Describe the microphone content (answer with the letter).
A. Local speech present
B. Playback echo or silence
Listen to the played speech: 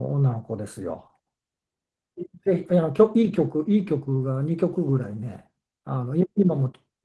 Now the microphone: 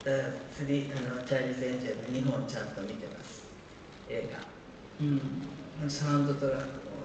A